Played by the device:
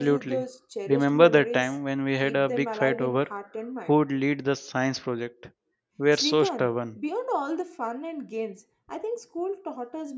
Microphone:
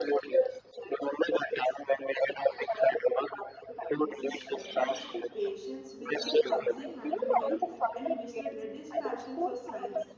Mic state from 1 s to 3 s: echo only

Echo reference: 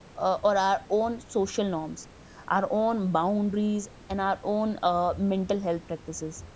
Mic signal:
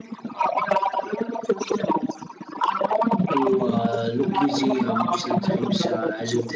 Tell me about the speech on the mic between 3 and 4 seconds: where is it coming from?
both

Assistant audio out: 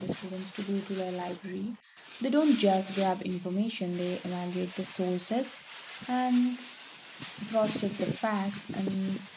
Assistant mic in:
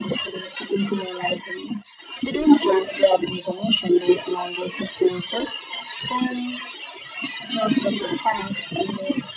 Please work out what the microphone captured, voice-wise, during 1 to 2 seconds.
echo only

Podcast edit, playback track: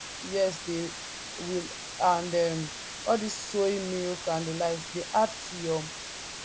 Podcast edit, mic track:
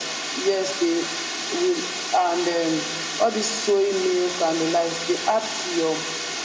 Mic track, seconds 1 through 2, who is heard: echo only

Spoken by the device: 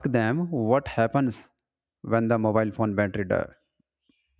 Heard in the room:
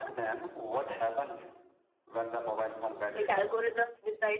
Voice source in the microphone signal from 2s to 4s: both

